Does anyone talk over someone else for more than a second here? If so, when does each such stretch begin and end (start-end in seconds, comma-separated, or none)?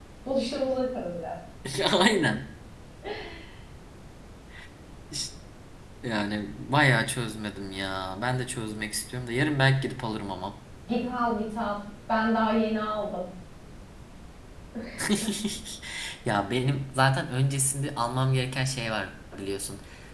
none